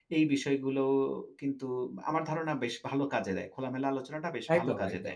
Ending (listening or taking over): taking over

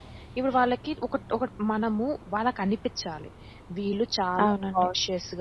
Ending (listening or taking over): listening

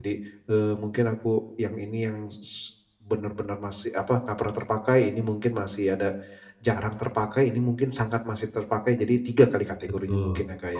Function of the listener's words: taking over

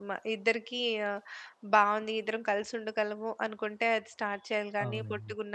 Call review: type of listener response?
listening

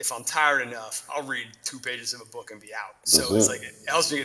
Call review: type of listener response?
listening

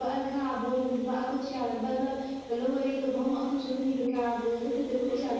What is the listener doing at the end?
listening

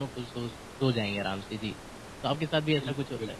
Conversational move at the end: taking over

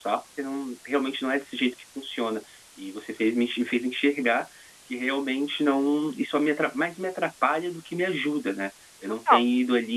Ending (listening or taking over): listening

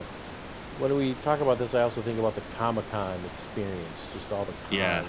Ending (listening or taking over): listening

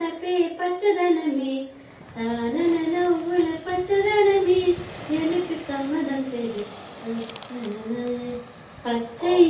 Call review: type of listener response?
listening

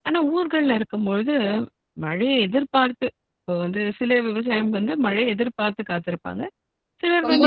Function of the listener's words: taking over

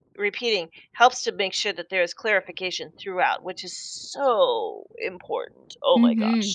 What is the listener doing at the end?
taking over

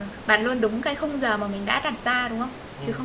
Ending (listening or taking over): taking over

